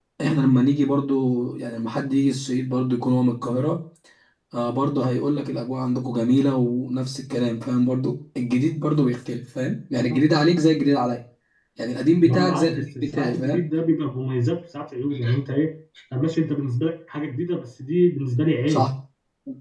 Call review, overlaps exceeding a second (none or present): present